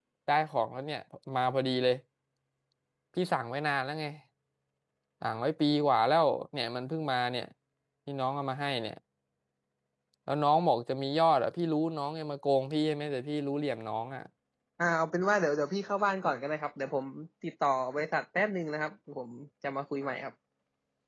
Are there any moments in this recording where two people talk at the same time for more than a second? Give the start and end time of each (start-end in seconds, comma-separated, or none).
none